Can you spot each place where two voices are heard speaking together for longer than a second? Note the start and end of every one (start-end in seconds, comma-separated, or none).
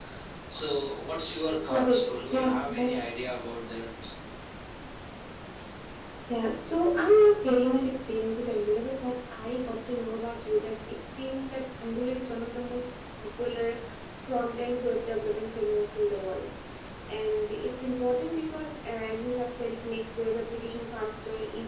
1.7-3.0